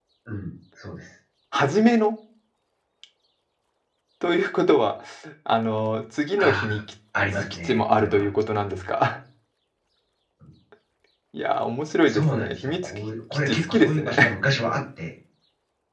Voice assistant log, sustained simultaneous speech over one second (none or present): present